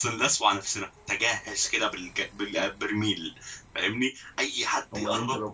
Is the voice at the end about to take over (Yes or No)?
Yes